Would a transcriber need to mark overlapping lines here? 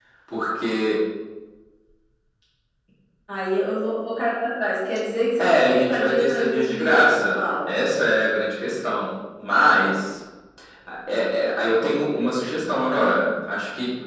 Yes, from 5.4 s

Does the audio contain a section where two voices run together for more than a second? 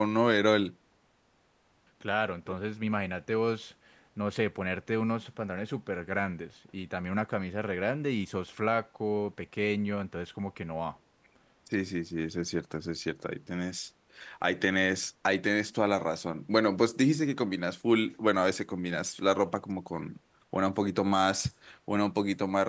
No

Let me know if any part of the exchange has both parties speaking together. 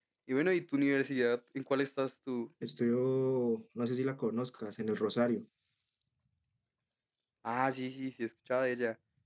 No

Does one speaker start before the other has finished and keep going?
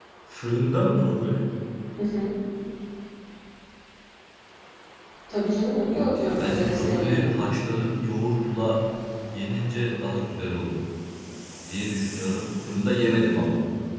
Yes, from 5.9 s

